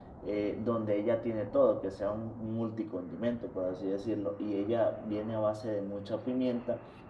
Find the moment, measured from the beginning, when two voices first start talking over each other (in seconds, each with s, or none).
none